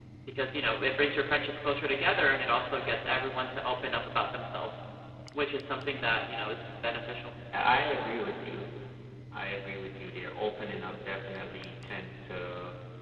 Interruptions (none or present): none